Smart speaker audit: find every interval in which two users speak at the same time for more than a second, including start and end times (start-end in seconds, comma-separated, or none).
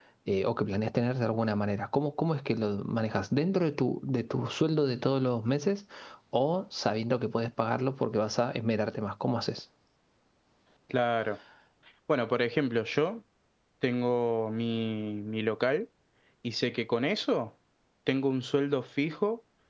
none